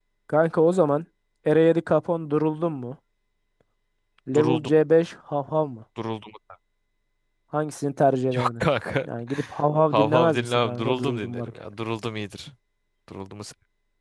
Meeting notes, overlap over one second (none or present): present